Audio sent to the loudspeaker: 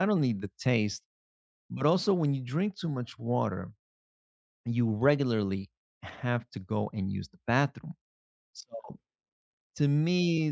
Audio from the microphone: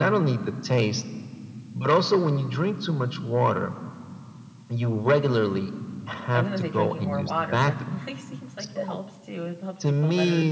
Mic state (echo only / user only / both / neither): both